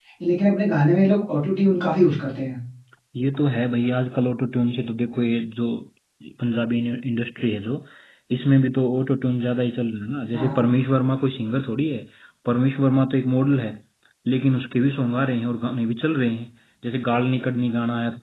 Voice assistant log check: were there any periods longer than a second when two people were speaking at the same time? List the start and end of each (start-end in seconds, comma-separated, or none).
none